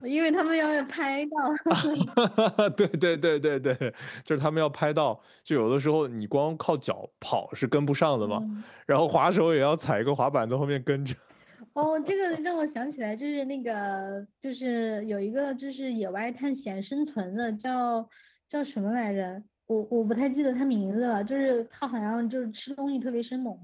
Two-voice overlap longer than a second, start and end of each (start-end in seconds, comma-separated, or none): none